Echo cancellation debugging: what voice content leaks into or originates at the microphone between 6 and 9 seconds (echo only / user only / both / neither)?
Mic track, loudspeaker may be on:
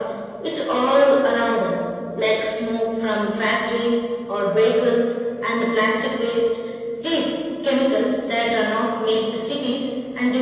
echo only